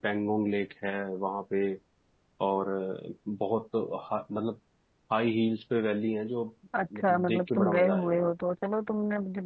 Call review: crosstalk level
present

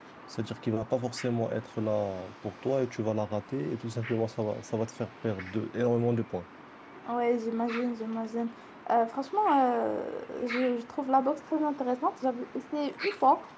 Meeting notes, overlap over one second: none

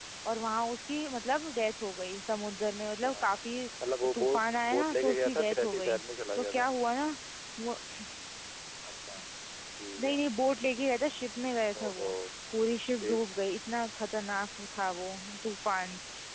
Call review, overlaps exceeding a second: present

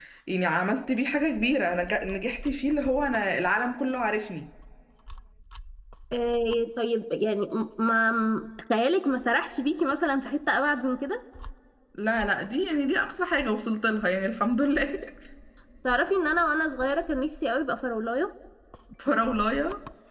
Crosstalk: none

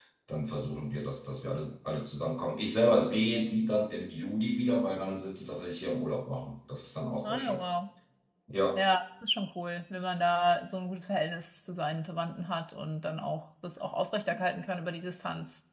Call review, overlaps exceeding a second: none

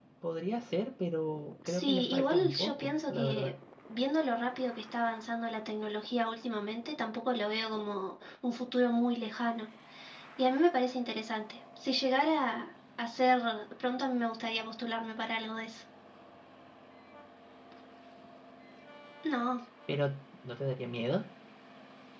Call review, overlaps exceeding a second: present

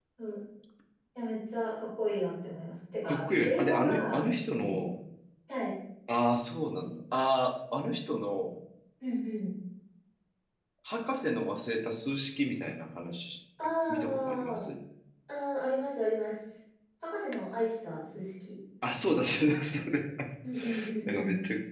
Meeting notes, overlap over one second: present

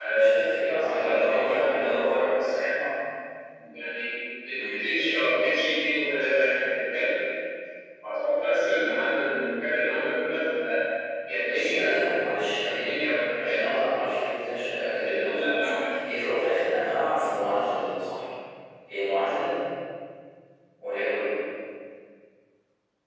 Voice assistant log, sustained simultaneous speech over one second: present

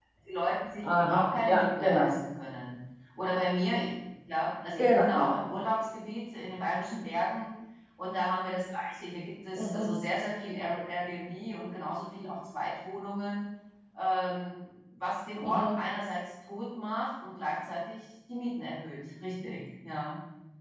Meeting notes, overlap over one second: present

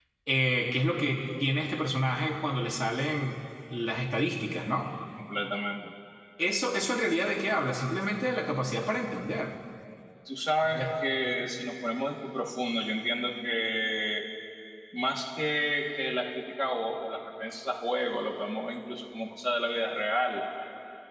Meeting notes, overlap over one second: none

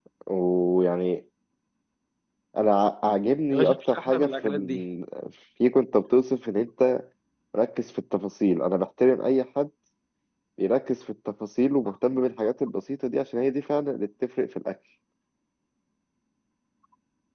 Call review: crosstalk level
present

